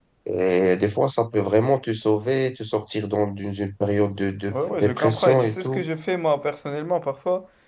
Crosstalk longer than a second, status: present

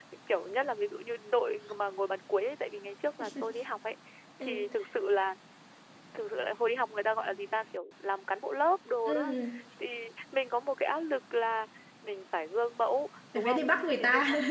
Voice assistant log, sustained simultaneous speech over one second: none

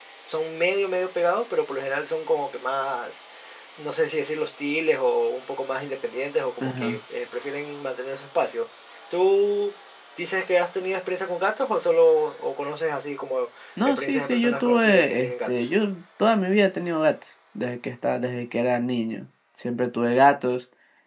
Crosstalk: present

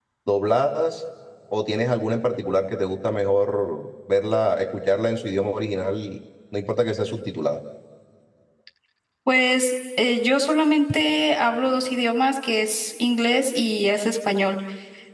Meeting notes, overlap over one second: none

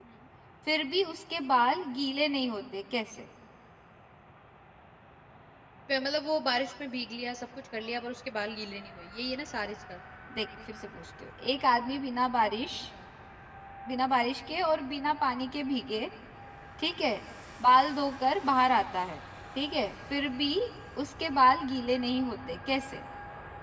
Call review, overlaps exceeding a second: none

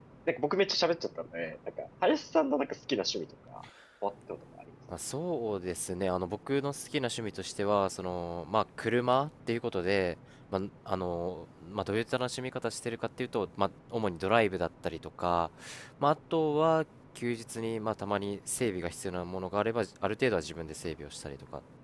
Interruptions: none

